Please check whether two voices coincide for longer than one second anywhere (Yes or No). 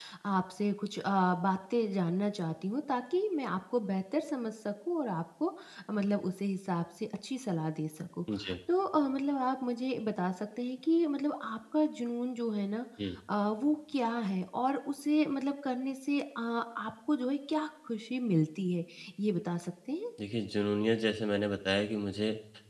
No